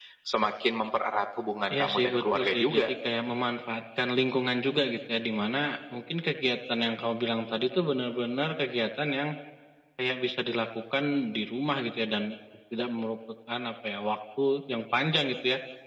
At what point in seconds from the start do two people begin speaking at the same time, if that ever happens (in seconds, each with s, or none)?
1.7 s